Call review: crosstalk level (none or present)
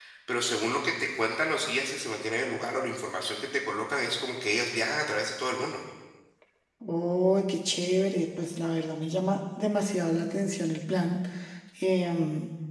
none